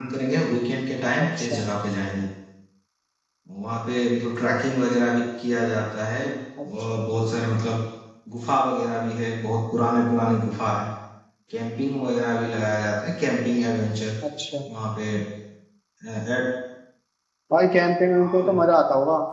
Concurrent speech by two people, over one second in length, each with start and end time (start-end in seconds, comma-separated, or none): none